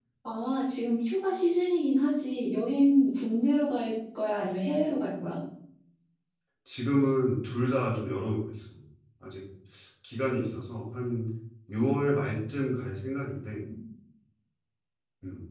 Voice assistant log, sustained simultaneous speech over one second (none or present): none